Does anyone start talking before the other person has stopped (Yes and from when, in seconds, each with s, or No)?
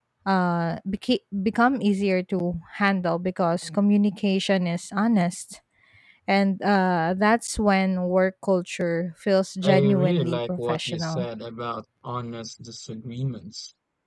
Yes, from 9.6 s